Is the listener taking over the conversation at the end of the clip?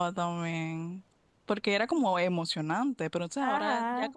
No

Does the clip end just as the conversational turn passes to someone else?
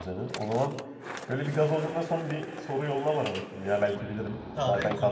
Yes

